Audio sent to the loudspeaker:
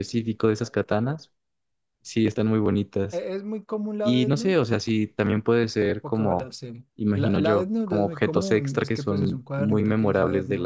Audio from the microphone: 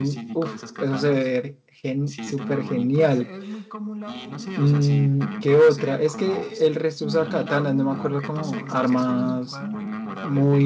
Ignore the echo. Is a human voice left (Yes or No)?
Yes